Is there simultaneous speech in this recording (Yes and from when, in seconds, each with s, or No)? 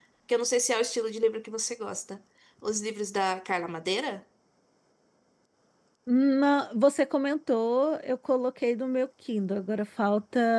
No